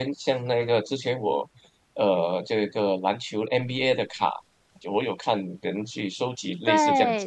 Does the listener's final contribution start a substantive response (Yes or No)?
Yes